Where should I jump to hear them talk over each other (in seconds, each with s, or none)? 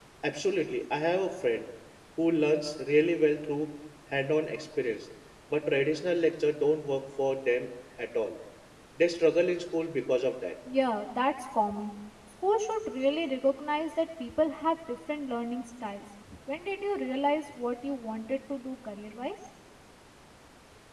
none